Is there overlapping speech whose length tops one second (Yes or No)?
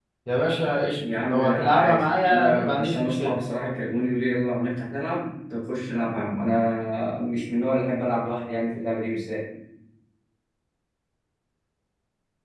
Yes